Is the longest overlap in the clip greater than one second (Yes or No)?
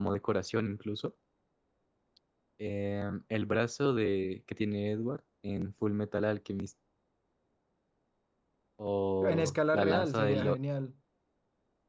Yes